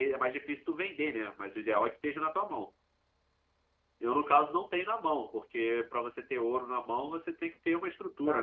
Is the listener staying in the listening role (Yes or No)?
No